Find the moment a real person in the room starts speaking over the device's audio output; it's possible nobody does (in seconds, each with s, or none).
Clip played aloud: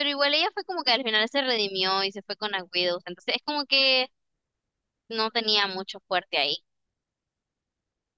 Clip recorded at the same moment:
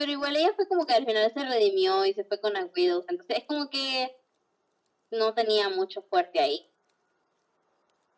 none